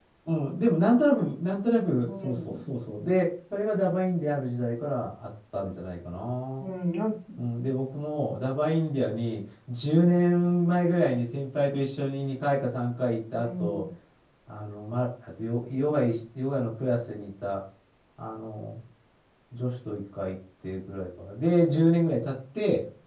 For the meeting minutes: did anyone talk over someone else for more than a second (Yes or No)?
No